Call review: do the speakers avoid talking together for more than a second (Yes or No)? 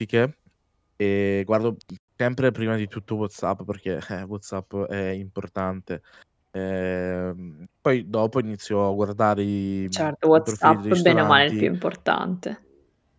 No